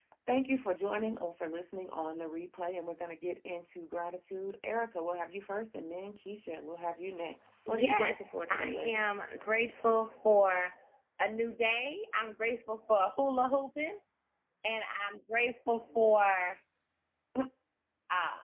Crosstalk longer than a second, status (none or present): present